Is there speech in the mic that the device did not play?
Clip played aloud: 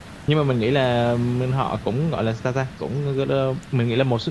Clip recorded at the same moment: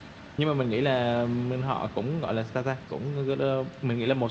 No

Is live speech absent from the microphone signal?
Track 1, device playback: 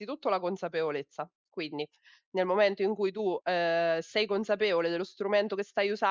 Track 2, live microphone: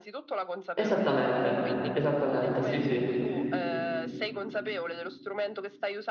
No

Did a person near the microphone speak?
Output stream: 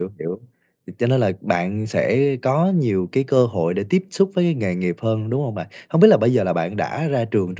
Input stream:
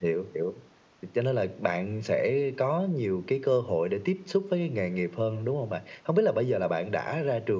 No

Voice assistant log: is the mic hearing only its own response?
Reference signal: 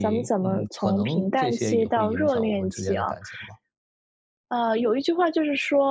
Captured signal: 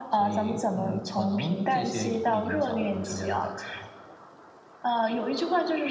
Yes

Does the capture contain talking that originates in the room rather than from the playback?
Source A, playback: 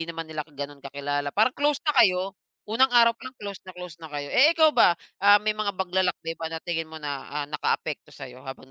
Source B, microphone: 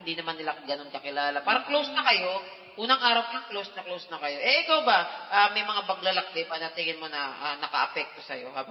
Yes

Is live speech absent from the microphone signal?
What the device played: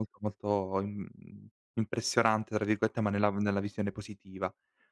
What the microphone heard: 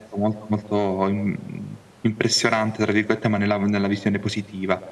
Yes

